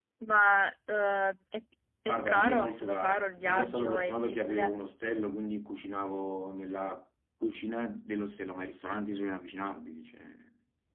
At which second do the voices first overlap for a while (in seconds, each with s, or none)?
2.1 s